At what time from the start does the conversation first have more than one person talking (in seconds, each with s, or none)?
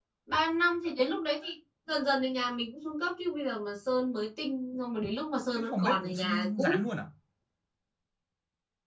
5.6 s